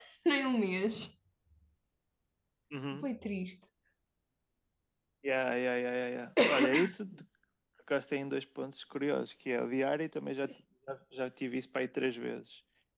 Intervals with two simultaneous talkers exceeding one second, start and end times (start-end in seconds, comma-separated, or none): none